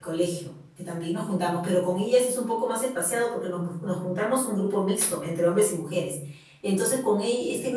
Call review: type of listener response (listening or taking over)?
listening